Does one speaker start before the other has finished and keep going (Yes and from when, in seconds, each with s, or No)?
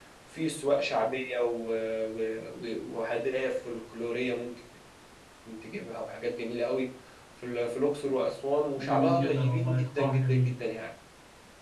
Yes, from 8.8 s